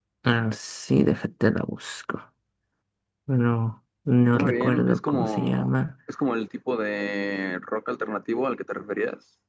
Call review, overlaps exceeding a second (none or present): present